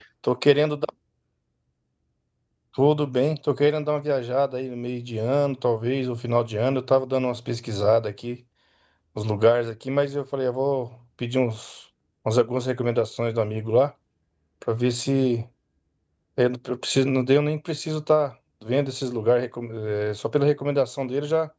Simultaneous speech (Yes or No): No